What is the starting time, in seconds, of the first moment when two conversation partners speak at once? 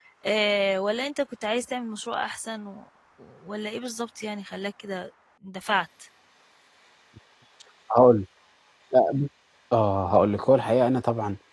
none

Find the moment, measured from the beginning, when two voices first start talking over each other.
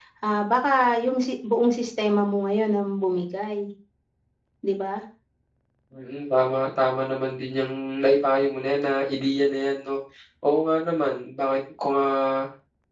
none

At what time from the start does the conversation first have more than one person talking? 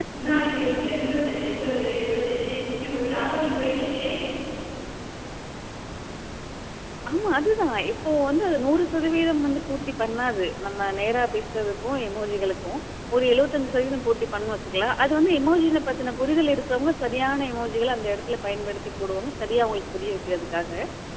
none

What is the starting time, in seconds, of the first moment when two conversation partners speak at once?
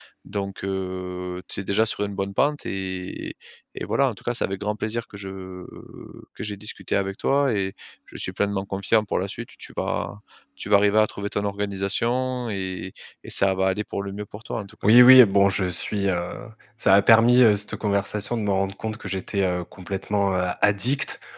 none

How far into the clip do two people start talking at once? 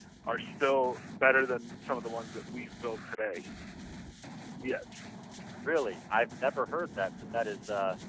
none

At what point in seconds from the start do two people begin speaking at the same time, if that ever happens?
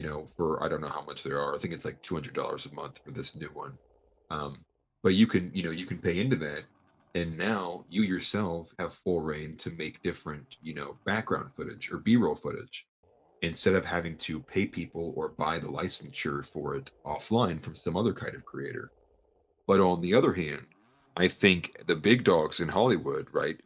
none

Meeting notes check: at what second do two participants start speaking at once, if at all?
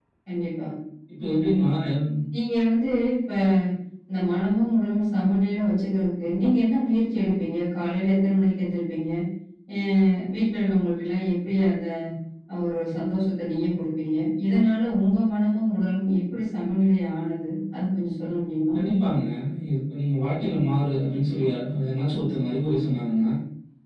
none

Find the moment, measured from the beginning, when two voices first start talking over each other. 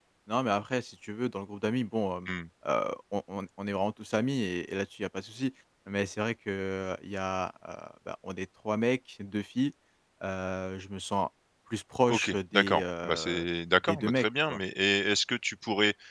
12.1 s

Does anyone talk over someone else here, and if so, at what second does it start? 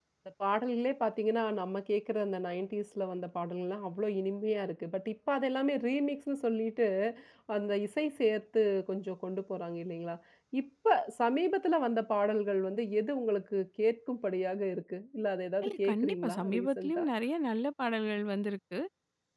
15.6 s

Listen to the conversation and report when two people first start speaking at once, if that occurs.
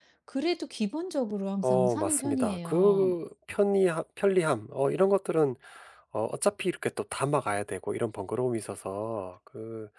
1.6 s

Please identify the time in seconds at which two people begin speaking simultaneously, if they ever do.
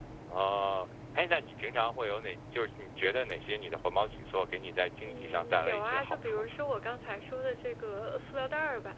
5.0 s

